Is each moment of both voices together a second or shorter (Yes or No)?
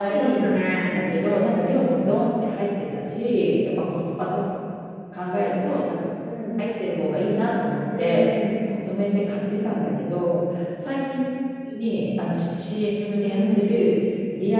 Yes